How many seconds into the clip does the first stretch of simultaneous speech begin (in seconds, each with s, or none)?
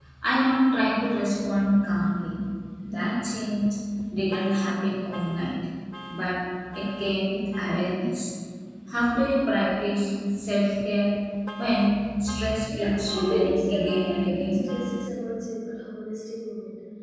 12.7 s